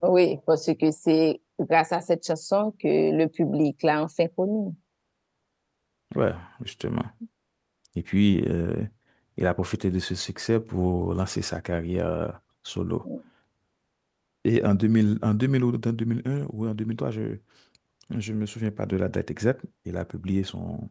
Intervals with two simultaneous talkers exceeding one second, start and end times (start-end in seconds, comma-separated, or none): none